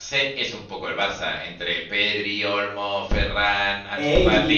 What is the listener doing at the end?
taking over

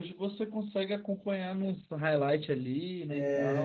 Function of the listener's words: taking over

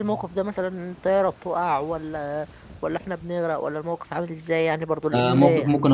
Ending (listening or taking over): taking over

